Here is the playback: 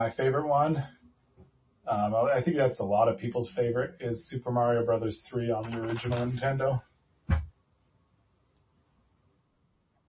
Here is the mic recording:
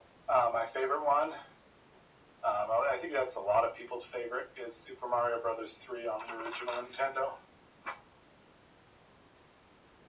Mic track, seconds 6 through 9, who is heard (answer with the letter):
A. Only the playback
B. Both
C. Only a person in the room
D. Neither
A